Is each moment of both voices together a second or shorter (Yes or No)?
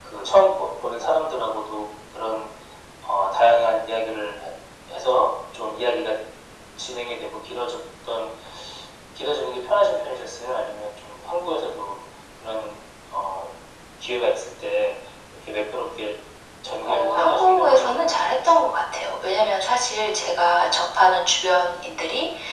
No